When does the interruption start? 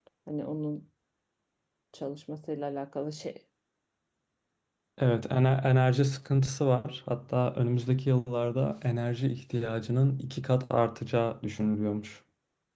none

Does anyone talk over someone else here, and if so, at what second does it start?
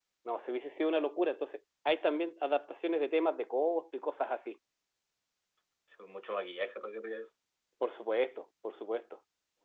none

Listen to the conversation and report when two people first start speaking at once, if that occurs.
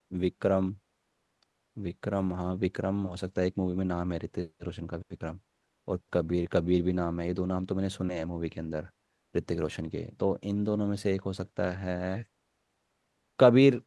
none

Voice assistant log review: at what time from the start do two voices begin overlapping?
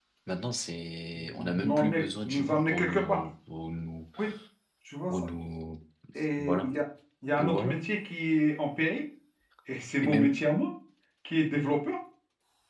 1.4 s

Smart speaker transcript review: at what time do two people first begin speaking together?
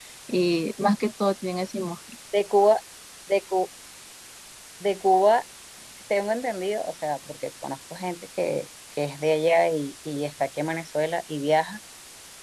none

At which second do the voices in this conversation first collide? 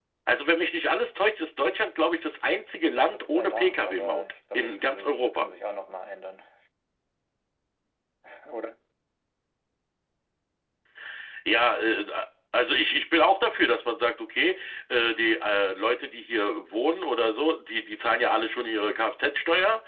3.0 s

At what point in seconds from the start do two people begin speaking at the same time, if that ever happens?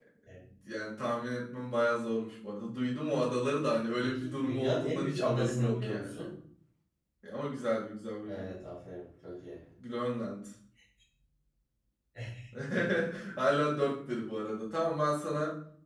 4.0 s

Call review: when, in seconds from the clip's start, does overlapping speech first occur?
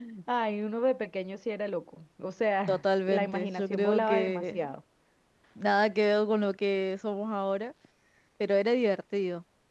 2.7 s

